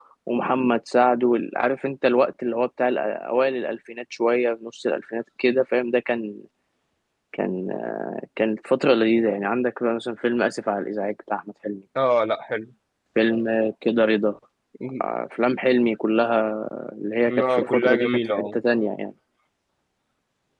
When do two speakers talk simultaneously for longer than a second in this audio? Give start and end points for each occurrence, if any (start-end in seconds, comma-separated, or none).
17.3-18.6